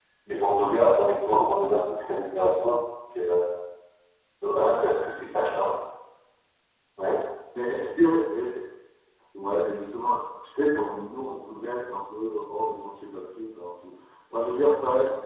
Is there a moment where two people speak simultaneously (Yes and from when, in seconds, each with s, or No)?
No